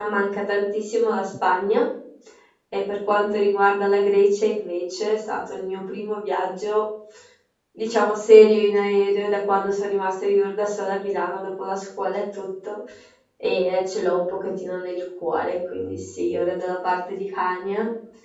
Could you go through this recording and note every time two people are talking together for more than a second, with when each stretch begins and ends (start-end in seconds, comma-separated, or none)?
none